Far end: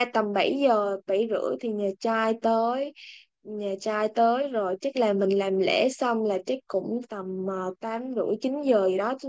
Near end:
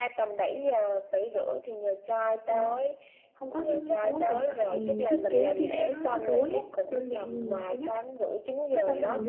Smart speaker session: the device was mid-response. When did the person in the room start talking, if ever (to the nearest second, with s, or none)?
2 s